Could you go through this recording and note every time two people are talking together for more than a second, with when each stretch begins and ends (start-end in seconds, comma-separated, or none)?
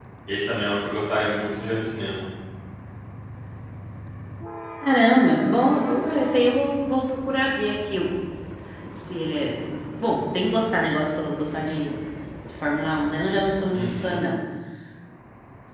none